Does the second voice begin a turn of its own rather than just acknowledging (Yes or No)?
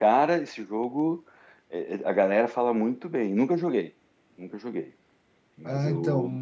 Yes